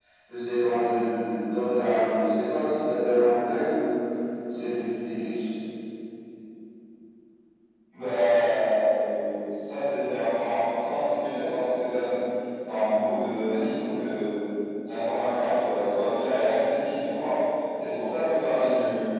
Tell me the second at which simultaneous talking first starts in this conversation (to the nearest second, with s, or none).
none